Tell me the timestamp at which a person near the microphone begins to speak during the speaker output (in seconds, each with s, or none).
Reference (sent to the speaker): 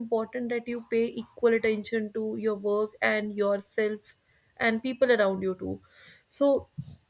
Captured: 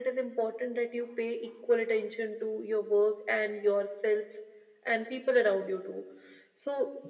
none